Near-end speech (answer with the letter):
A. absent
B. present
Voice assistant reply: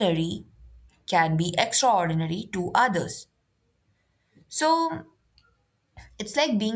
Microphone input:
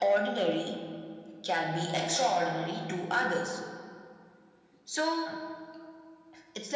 A